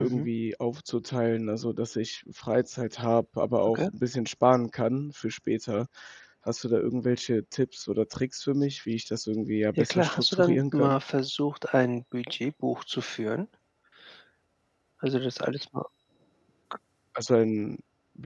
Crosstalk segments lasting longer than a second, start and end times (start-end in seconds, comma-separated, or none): 9.8-11.0